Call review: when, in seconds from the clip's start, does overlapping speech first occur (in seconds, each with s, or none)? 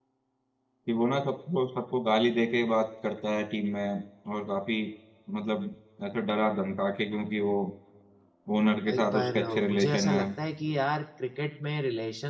8.9 s